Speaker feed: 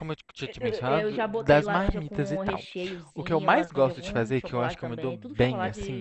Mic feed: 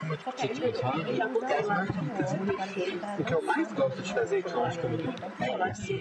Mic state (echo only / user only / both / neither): both